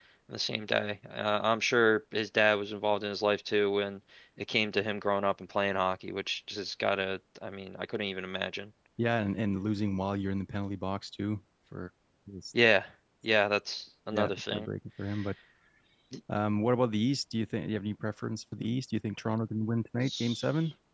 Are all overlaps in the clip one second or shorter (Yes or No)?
Yes